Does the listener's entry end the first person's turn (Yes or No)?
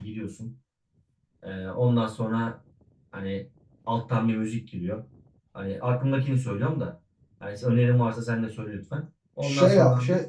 Yes